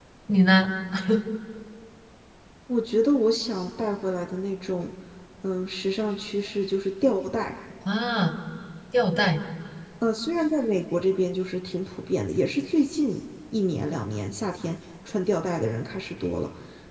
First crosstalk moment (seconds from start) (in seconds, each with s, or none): none